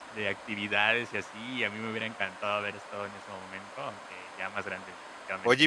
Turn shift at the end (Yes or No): Yes